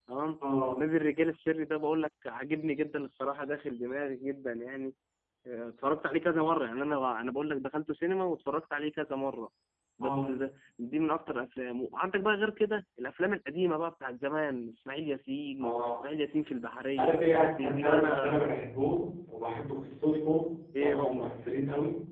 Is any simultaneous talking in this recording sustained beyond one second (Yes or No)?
Yes